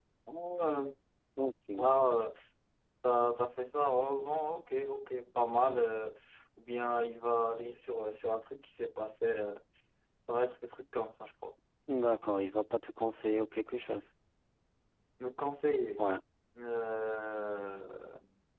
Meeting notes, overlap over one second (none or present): none